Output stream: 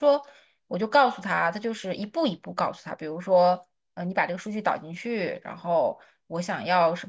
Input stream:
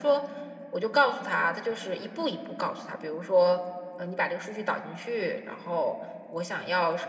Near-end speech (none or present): none